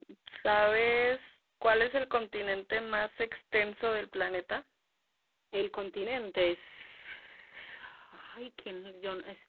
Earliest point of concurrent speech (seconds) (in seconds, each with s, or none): none